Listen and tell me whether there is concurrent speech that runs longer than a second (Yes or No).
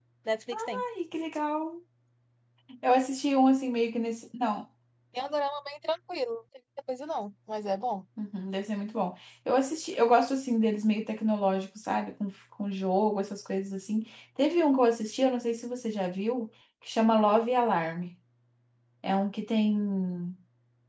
No